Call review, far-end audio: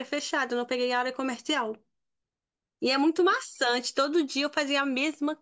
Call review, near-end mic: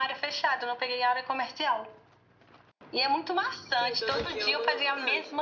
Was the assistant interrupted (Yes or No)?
Yes